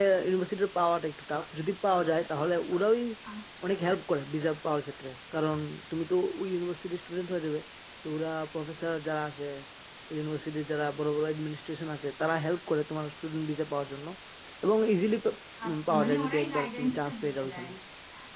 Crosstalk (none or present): present